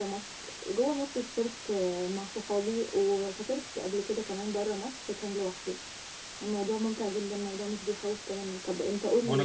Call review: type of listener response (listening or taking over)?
taking over